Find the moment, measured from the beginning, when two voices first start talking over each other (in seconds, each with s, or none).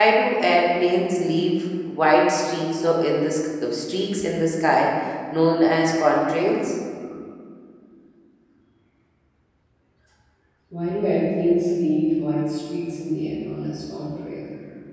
none